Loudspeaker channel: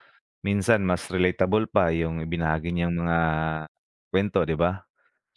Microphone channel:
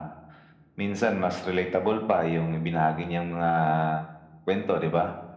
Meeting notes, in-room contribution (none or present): none